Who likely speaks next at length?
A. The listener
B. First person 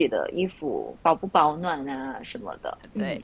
A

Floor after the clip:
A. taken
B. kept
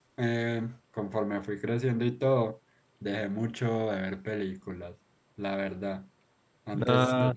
B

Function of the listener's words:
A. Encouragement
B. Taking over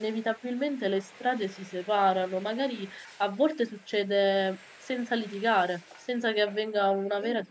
A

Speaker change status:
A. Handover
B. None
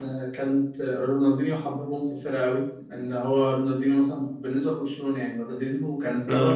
B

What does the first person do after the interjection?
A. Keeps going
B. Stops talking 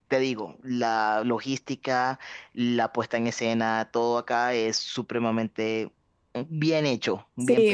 B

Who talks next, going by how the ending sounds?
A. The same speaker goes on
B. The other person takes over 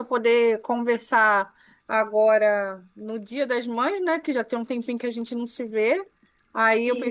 A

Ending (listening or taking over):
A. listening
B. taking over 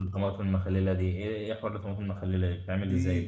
B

